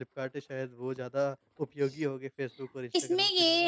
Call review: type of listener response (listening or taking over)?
taking over